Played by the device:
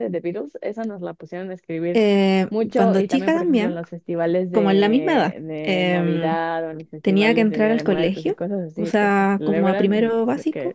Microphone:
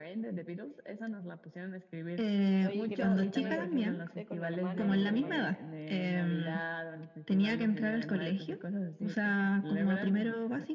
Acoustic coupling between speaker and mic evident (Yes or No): Yes